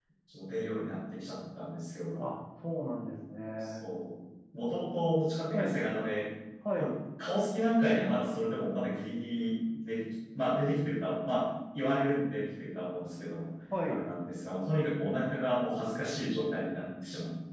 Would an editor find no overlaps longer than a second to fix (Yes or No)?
Yes